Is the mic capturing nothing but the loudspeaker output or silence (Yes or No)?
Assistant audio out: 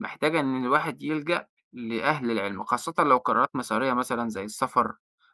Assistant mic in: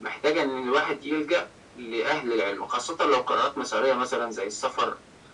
Yes